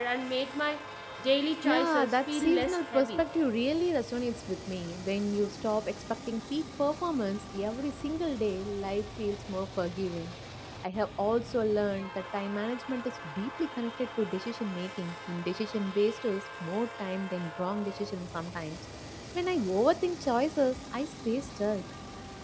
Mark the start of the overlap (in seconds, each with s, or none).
1.6 s